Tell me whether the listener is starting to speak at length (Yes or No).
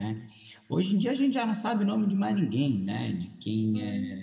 No